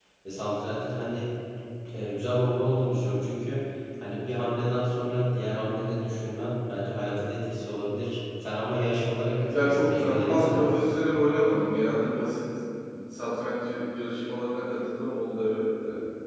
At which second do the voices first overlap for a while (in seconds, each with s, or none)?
9.5 s